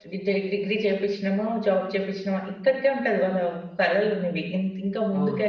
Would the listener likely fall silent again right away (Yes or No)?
Yes